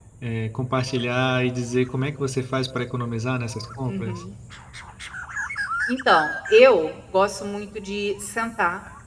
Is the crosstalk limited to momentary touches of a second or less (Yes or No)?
Yes